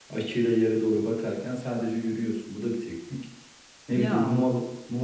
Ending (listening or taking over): listening